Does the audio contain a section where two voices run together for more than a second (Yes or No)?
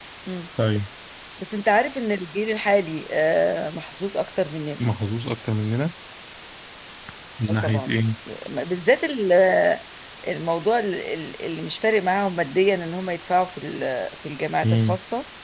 No